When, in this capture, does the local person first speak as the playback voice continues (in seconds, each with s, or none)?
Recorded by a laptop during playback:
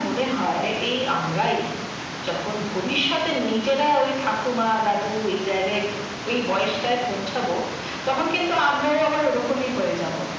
none